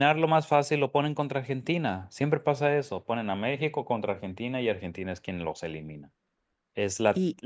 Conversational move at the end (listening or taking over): listening